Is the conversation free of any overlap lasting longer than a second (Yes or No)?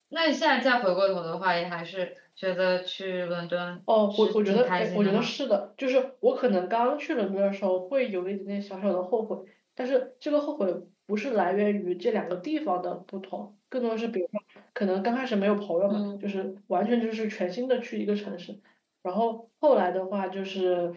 No